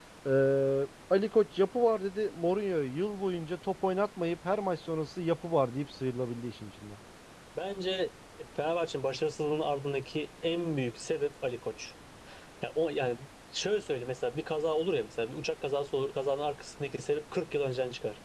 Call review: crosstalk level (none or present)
none